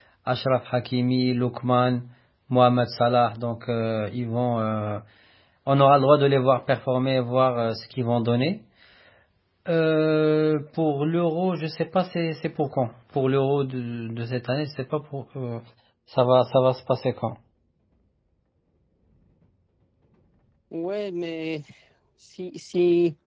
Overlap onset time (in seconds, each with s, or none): none